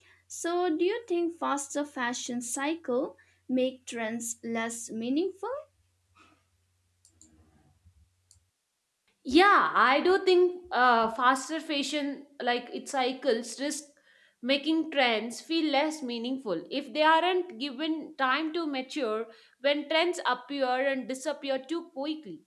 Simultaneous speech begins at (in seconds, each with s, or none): none